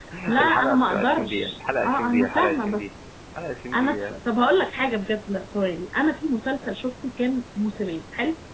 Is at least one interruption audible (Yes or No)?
Yes